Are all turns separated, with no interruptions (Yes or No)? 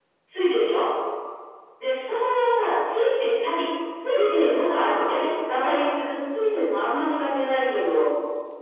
No